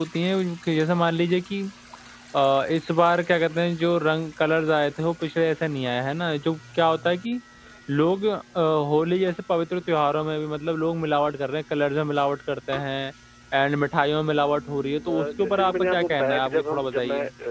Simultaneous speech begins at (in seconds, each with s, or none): 15.1 s